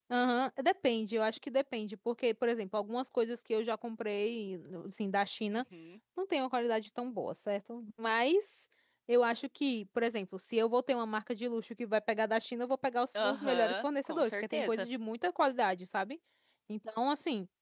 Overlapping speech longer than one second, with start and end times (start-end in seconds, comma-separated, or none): 13.2-14.9